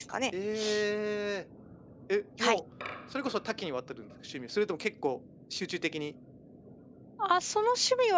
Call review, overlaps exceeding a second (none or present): none